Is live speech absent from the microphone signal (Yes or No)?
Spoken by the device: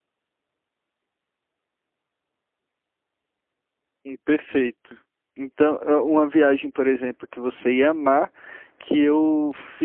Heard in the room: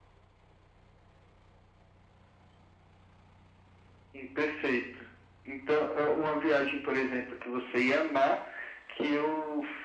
Yes